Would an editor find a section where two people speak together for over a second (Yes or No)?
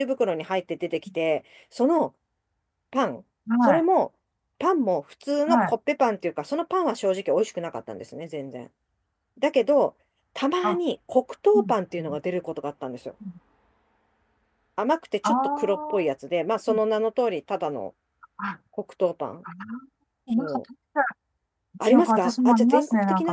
Yes